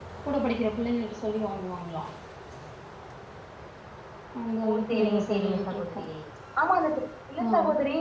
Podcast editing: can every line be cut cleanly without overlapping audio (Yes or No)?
No